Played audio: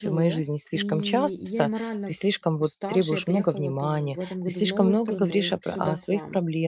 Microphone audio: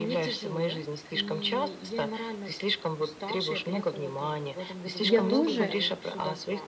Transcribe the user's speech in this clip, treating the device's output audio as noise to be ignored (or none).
и я тоже,